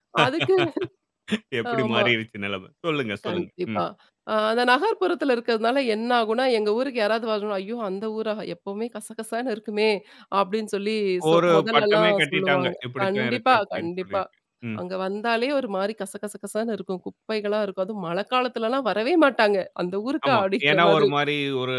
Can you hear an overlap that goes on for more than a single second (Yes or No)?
Yes